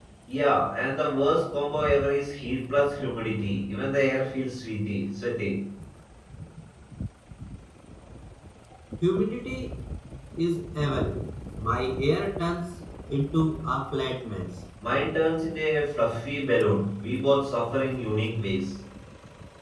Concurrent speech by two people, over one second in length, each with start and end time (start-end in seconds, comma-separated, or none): none